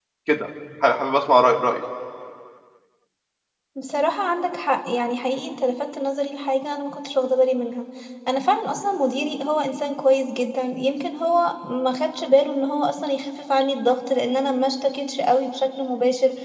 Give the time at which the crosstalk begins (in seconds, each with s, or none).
none